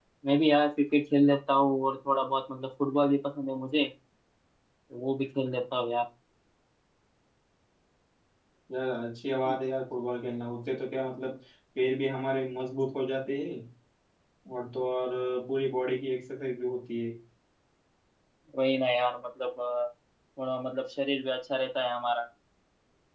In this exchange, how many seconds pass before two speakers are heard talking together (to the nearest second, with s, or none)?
none